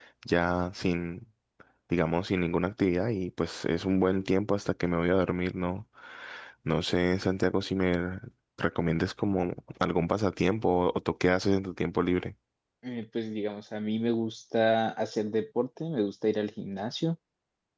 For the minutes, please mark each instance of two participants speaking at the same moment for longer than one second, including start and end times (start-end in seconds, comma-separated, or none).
none